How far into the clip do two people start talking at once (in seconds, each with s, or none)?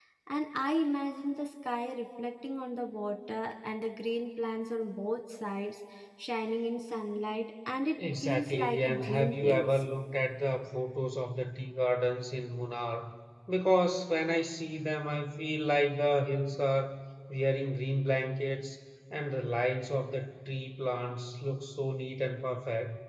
8.0 s